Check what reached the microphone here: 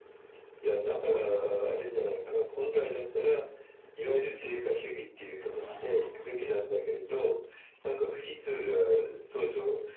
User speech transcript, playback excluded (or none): none